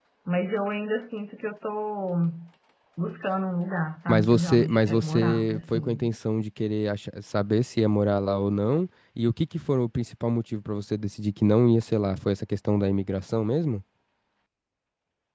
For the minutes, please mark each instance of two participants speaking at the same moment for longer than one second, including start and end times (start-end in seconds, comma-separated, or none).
4.1-6.1